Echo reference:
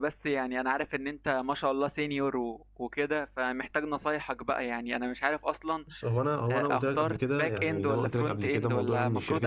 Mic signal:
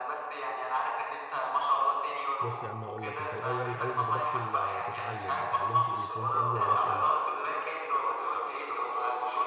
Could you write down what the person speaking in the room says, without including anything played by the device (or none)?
بص يا عم هقول لك انت الاول اول ما بدأت ال- تتعلم اتعلمت ايه فرونت اند ولا باك اند